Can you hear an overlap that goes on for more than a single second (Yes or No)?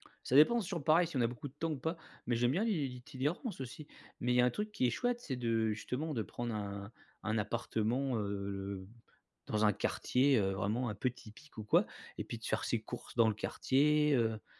No